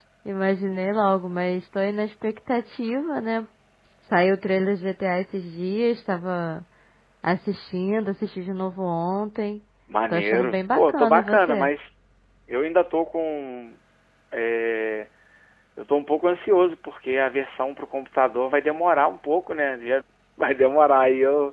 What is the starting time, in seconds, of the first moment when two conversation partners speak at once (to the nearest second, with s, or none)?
10 s